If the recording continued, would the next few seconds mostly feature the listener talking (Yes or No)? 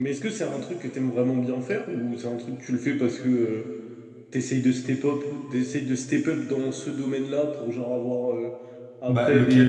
No